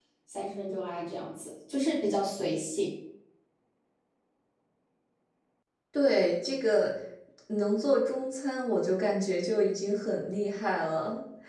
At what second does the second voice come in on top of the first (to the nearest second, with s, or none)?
none